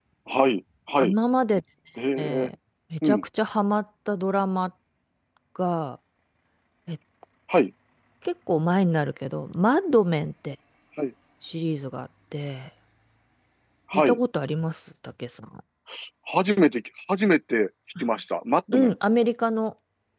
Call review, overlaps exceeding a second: none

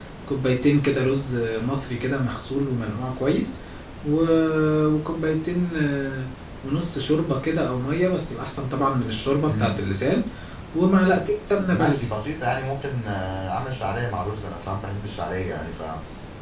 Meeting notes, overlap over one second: none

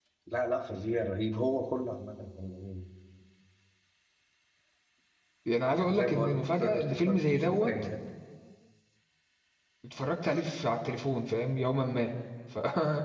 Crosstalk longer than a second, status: present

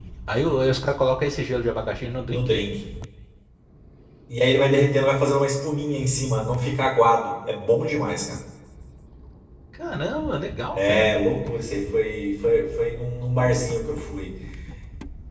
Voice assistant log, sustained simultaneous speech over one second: none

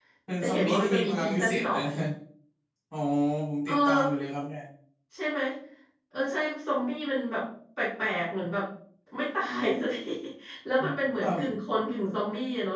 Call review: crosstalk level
present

